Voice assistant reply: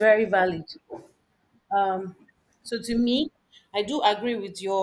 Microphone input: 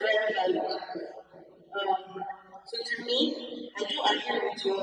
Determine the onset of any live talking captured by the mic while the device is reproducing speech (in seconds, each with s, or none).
none